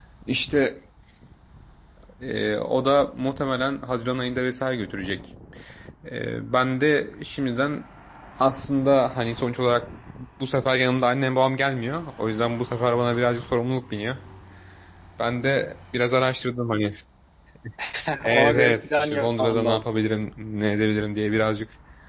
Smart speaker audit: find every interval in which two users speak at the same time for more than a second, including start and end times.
18.2-19.8

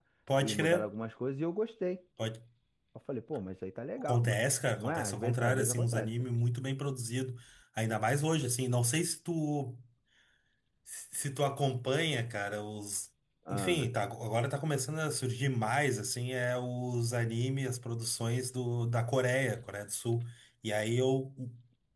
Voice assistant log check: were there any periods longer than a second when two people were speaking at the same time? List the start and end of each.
4.8-6.1

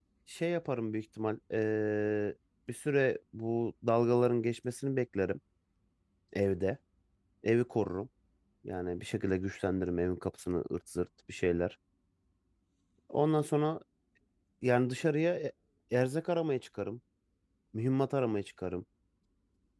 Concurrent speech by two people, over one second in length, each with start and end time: none

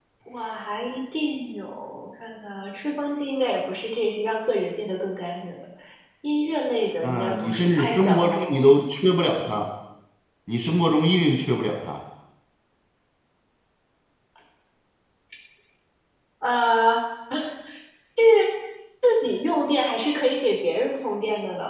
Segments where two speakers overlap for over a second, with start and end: 7.0-8.7

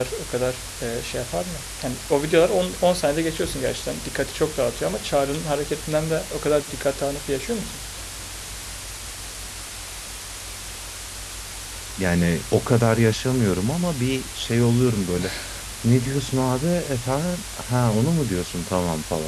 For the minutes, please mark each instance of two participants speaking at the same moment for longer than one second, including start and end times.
none

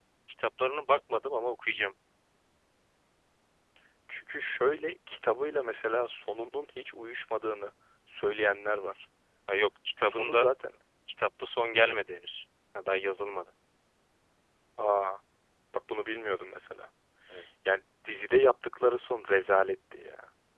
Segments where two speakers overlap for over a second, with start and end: none

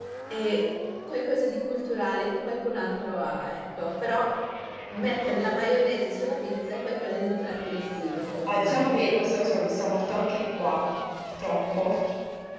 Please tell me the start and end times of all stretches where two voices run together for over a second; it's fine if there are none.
none

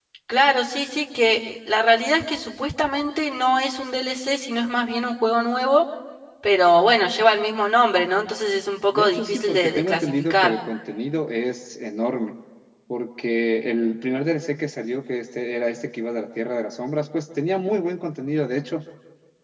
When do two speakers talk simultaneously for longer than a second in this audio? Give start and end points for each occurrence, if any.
8.9-10.5

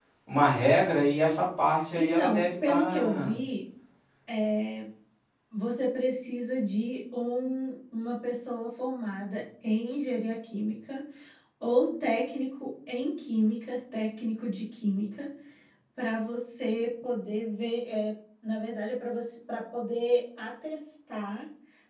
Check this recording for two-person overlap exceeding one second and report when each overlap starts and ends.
2.0-3.4

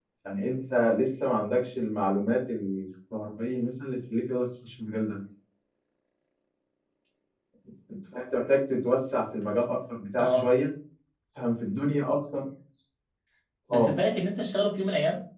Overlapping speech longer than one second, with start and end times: none

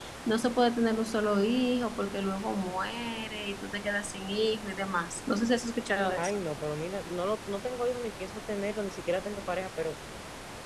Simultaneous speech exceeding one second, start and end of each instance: none

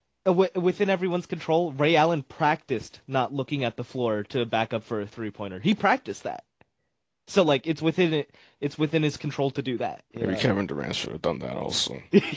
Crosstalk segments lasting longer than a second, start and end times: none

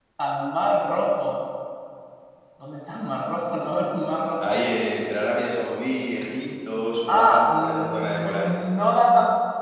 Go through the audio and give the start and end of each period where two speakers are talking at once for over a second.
7.1-8.5

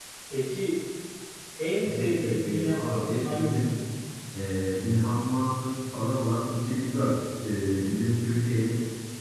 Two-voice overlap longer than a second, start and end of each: 1.8-3.7

